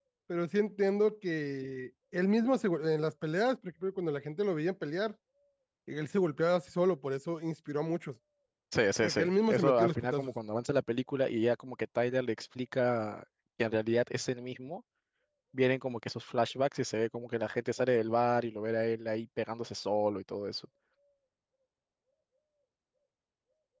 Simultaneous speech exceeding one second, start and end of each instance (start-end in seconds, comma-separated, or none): 9.0-10.3